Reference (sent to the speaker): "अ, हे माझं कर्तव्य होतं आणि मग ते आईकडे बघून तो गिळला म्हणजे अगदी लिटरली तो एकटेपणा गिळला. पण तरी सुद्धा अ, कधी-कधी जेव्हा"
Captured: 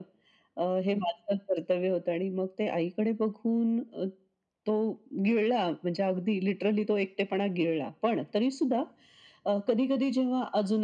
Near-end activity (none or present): none